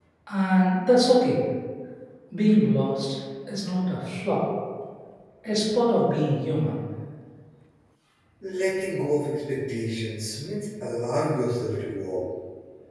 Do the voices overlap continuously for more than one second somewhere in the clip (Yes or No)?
No